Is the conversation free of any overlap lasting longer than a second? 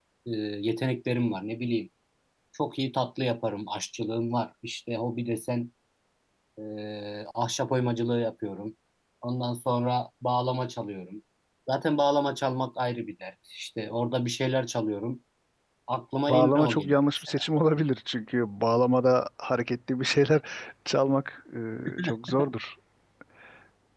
No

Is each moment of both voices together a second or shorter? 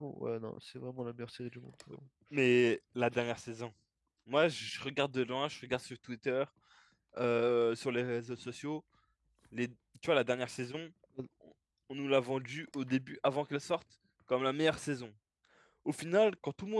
Yes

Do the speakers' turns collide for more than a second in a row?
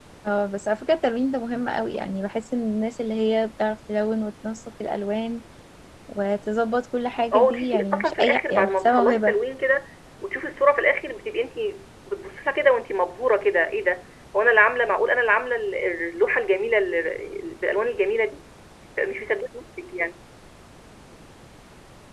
Yes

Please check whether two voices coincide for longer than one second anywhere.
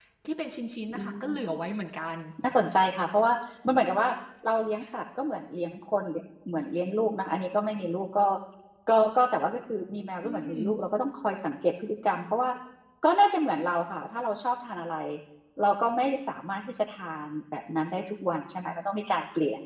No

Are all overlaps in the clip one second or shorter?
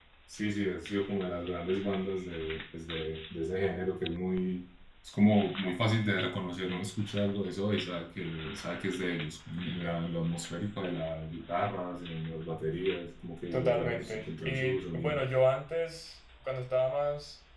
No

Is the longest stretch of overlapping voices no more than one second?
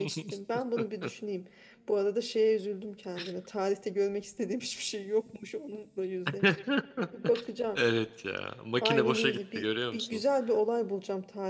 No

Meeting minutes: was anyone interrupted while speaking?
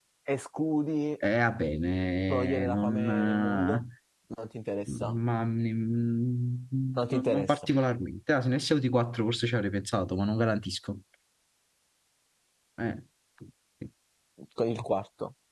Yes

